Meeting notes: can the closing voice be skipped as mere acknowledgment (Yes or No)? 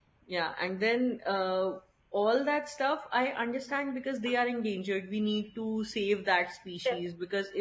Yes